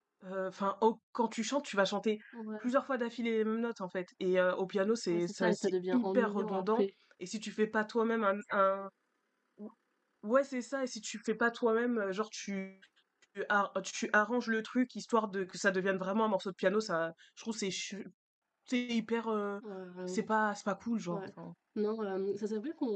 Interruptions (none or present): present